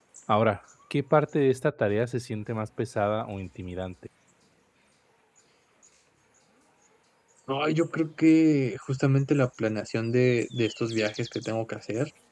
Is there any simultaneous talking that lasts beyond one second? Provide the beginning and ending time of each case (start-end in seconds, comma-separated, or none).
none